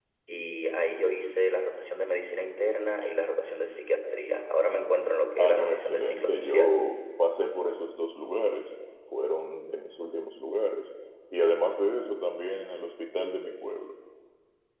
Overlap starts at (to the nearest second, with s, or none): 5 s